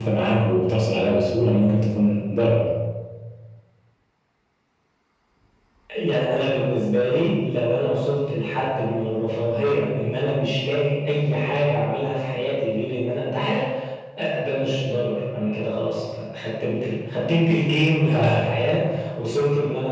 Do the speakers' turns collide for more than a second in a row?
No

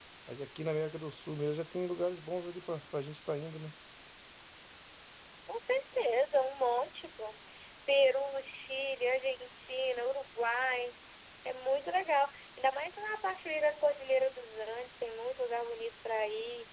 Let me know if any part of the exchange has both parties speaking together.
No

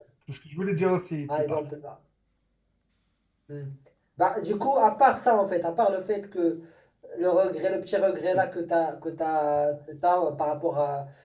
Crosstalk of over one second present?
No

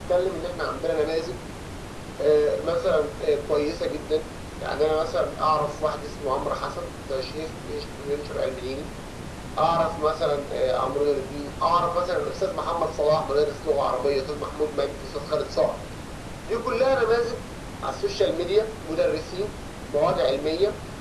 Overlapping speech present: No

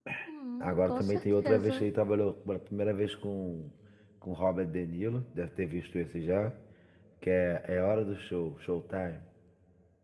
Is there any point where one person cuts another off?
Yes, from 0.6 s

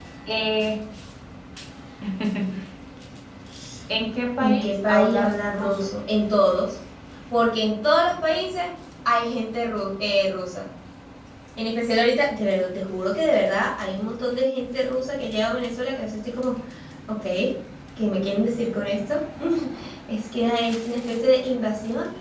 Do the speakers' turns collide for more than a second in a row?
Yes, from 4.4 s

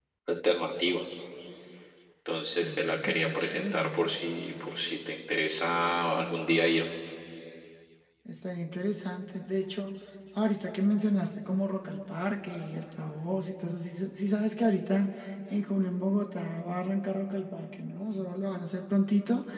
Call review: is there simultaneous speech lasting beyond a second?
Yes, from 2.6 s

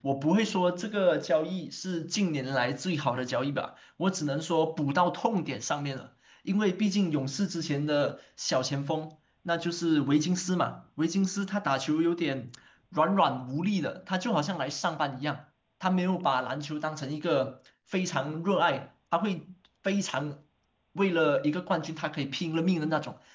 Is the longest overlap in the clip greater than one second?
No

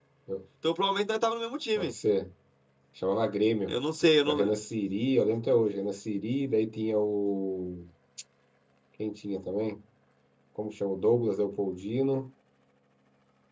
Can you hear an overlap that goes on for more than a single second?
No

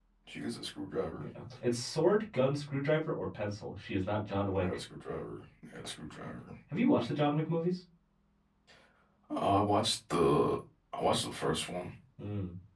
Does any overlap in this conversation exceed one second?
No

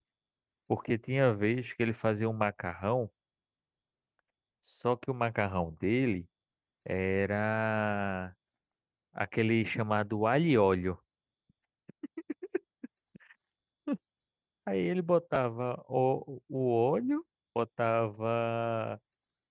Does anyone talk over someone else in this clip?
No

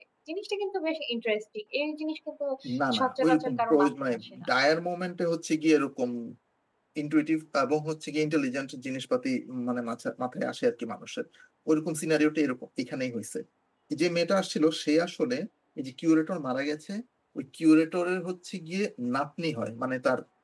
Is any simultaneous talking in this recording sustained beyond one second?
Yes, from 3.0 s

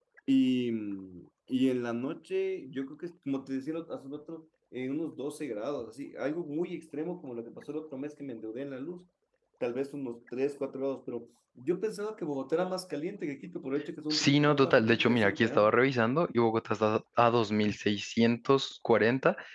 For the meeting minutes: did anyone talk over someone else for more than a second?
Yes, from 14.1 s

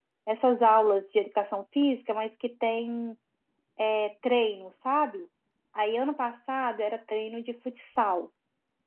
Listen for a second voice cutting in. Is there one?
No

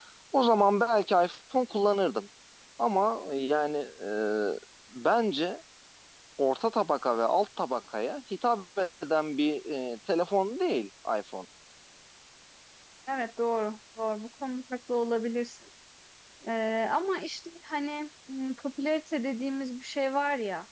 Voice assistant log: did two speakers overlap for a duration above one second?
No

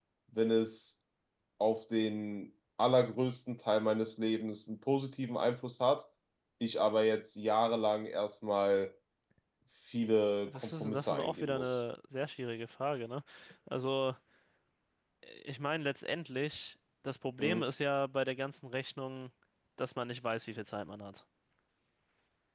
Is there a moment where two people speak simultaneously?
Yes, from 10.5 s

